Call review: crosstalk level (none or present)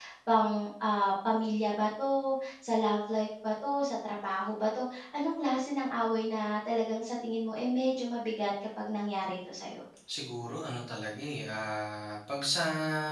none